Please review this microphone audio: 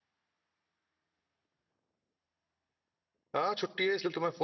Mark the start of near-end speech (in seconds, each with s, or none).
3.4 s